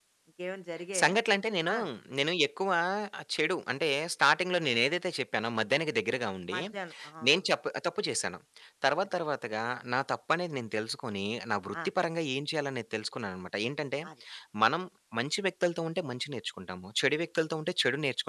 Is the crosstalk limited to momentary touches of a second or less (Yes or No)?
Yes